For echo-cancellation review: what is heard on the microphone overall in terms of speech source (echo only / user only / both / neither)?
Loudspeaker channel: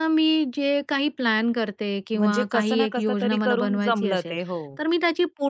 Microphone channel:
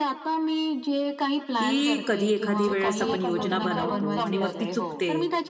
both